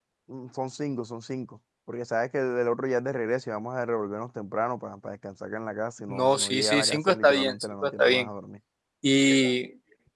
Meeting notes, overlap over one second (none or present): present